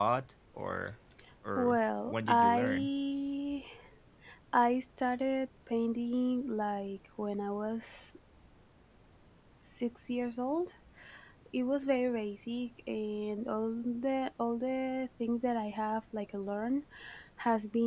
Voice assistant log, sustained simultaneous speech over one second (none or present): present